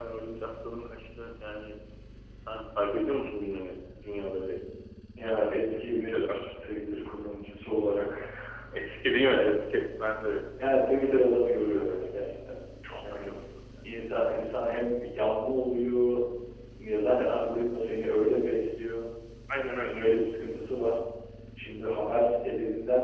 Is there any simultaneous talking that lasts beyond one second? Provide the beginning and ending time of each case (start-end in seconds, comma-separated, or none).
none